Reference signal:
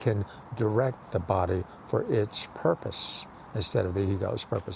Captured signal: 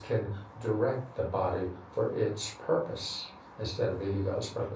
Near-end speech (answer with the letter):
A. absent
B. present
A